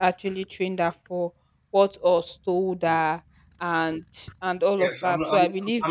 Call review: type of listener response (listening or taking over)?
taking over